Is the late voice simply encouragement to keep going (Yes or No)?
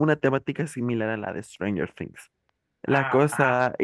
Yes